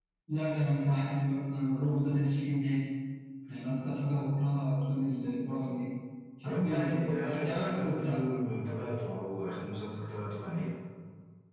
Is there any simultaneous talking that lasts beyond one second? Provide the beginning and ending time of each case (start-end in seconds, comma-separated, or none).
6.4-8.2